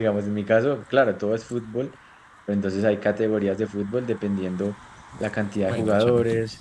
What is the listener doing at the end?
listening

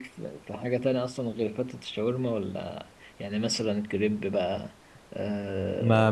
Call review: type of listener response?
taking over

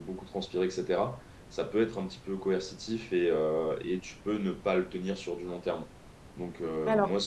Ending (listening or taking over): listening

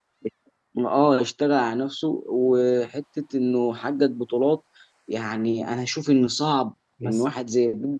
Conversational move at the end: listening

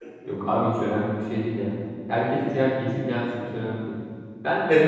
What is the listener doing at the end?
taking over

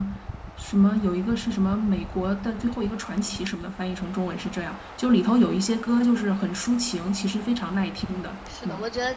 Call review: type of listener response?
taking over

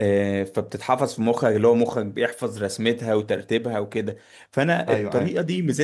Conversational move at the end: listening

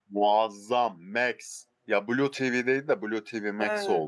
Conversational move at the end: taking over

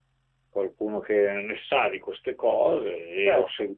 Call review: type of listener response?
listening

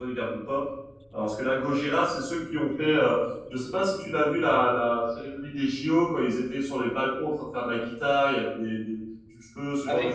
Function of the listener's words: taking over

